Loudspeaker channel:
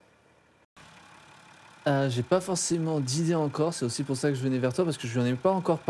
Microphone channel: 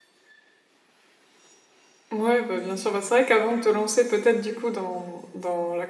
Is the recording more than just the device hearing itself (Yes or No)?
Yes